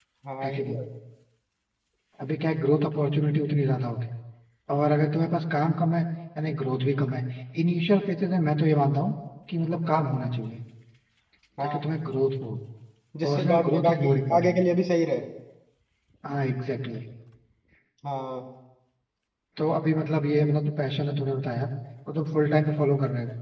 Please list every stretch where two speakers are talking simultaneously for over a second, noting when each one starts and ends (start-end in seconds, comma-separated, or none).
13.2-14.6